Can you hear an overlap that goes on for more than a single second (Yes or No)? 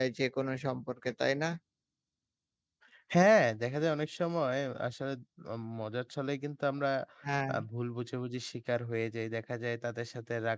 No